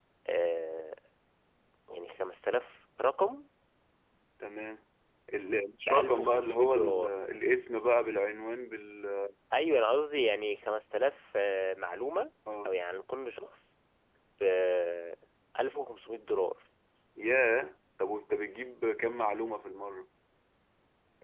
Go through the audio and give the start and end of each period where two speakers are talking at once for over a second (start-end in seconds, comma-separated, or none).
5.8-7.2